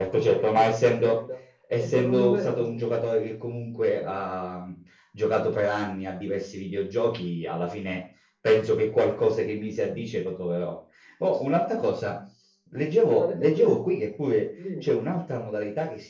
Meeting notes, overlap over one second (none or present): present